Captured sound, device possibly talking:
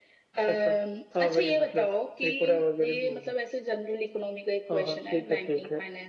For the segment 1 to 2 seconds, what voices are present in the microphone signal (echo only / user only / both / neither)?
echo only